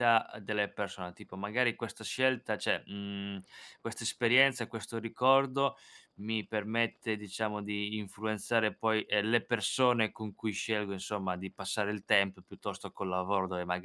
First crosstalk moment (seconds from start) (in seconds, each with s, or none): none